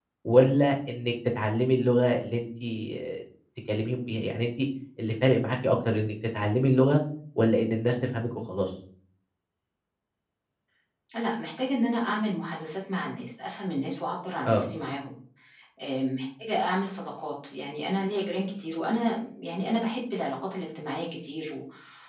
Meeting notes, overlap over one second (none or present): none